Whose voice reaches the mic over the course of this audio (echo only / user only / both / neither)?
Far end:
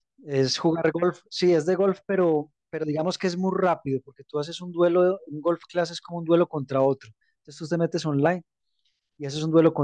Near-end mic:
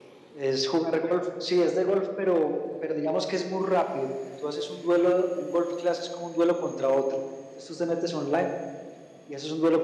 echo only